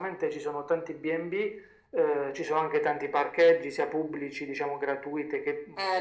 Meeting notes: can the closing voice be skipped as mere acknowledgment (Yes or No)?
No